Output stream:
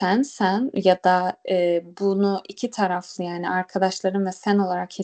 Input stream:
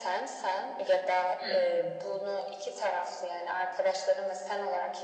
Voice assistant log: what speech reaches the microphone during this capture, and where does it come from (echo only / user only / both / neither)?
both